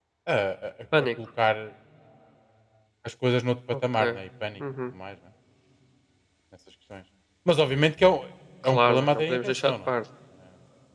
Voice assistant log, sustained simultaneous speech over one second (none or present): present